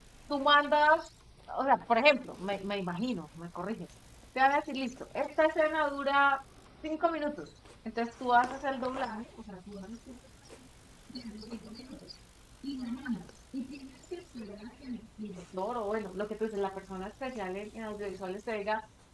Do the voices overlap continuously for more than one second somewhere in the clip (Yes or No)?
No